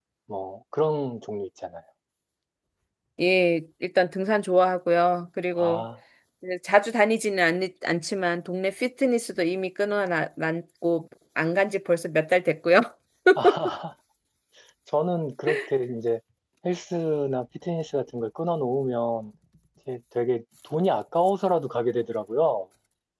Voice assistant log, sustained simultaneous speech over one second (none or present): none